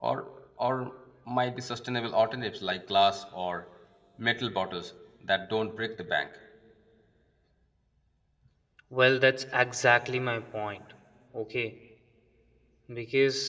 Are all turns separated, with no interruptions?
Yes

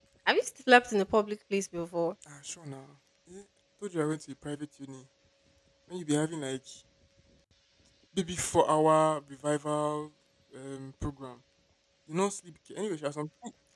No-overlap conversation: Yes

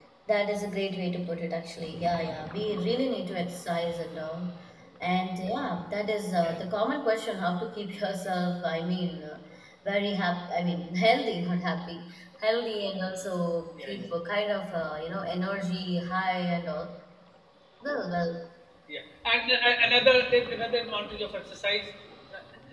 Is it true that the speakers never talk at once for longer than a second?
Yes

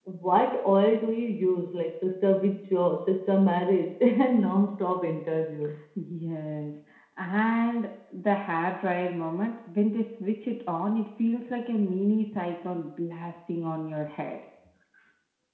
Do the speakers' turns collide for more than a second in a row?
No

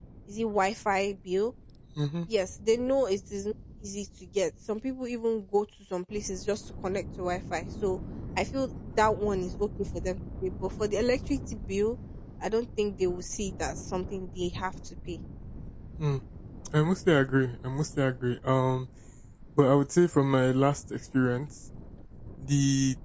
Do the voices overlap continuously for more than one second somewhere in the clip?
No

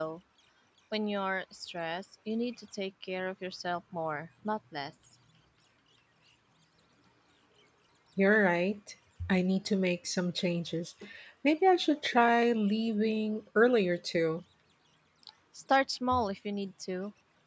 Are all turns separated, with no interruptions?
Yes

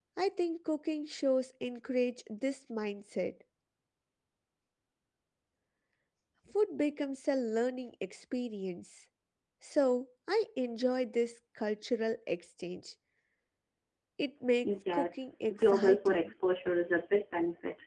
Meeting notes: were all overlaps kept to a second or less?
No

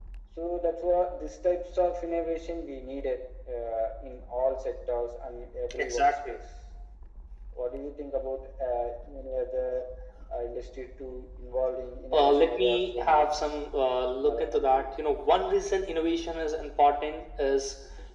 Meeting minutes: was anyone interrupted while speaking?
Yes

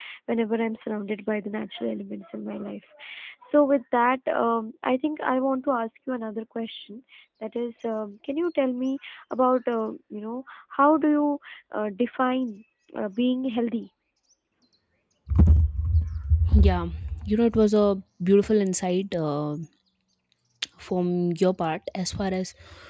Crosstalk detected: No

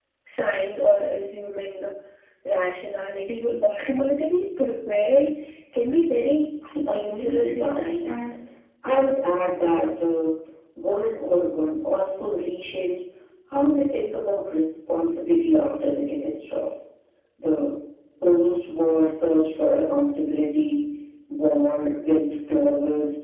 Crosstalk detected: Yes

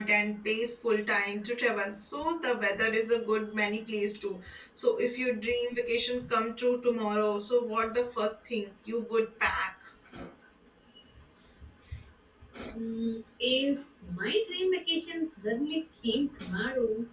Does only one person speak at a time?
Yes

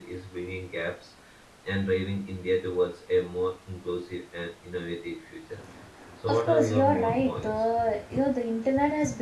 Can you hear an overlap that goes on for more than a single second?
Yes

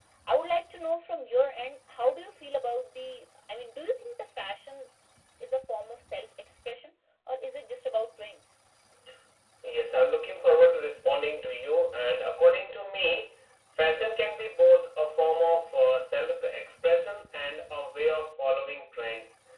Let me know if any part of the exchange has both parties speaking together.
No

